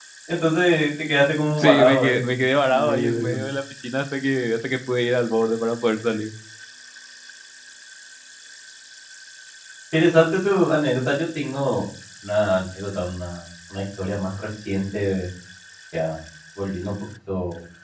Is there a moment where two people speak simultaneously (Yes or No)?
Yes